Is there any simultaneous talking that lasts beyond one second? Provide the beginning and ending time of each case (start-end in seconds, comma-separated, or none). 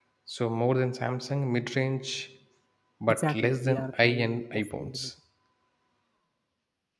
3.1-5.1